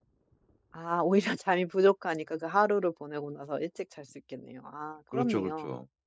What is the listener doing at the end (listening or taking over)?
taking over